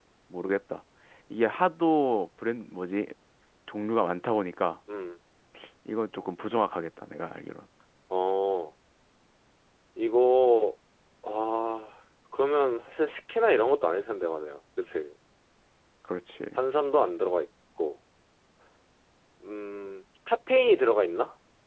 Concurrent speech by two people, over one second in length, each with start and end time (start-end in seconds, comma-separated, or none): none